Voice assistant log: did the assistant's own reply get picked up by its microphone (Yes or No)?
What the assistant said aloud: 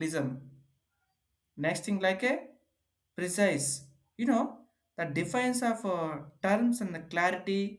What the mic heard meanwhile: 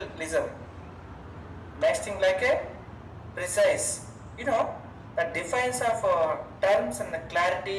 Yes